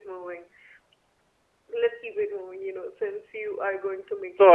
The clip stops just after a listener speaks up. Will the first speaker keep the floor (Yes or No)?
No